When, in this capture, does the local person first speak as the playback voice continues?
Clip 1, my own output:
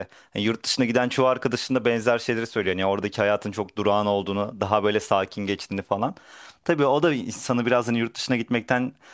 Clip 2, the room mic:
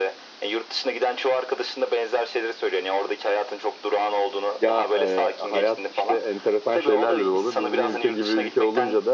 4.6 s

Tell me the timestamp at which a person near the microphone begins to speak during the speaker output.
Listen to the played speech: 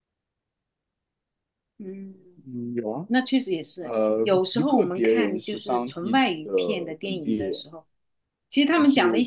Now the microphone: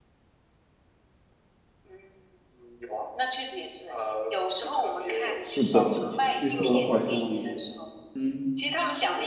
5.4 s

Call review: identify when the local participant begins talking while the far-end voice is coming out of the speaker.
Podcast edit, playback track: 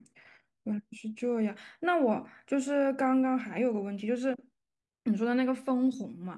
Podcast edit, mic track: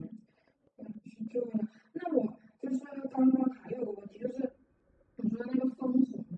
none

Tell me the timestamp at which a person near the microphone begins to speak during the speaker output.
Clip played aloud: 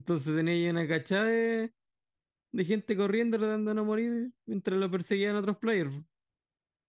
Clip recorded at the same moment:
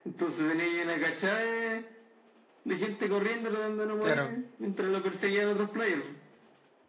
4.0 s

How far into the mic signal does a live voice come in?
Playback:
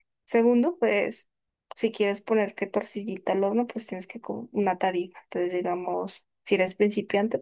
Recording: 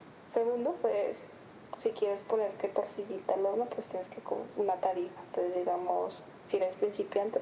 none

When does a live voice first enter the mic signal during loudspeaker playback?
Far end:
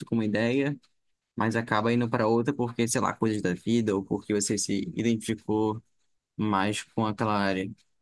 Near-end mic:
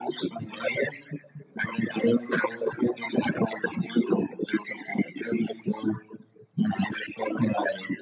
none

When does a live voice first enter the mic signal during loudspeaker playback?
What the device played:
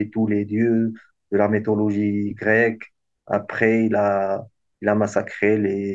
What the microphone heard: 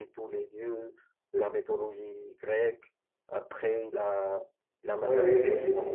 5.0 s

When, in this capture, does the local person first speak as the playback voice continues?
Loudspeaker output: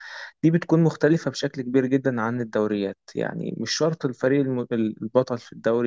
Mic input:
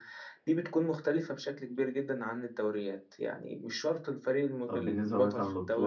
4.7 s

